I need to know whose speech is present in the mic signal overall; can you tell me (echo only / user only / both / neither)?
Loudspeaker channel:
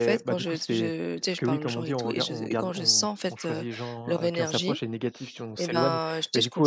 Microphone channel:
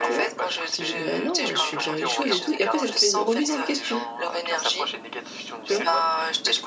both